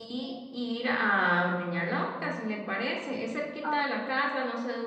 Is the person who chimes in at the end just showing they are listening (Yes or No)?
Yes